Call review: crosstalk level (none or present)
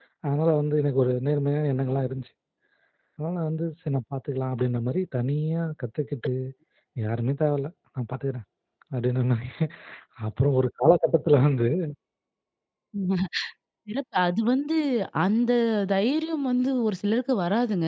none